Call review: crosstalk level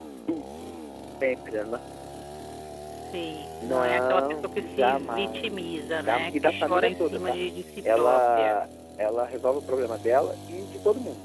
present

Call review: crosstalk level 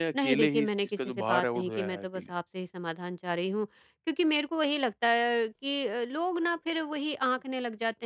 present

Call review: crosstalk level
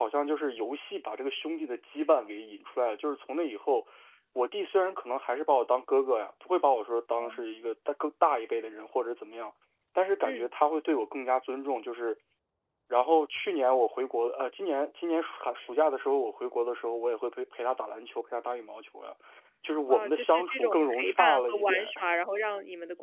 present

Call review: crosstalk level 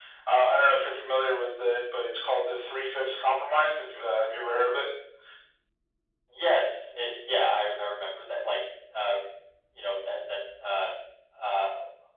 none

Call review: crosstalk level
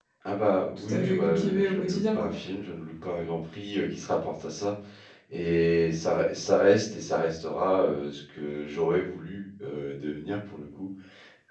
present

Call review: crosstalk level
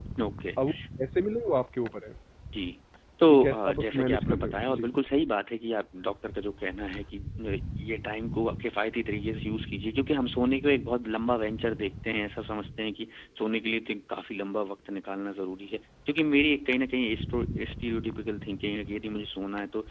present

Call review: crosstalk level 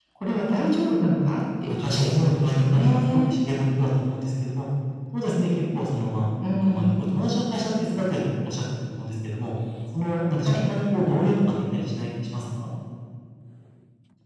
present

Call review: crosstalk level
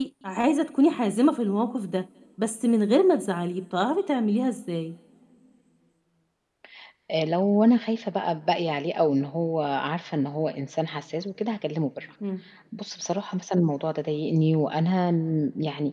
none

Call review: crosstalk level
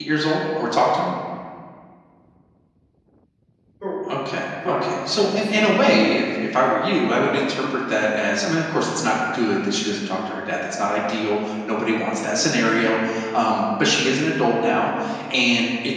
present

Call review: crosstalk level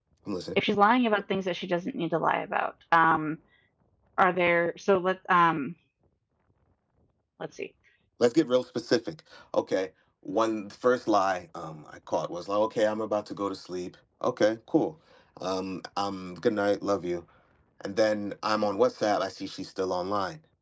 none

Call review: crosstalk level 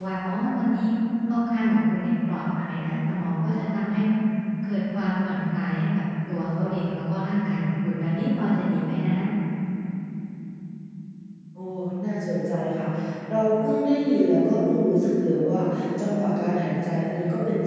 none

